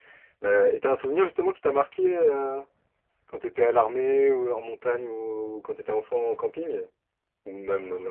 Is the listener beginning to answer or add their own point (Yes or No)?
Yes